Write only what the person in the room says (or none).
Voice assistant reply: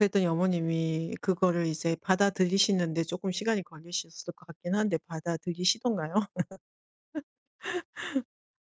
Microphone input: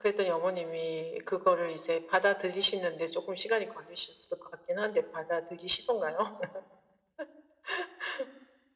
none